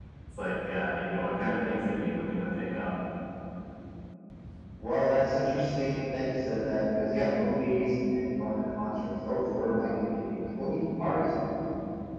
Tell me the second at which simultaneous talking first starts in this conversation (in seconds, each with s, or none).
none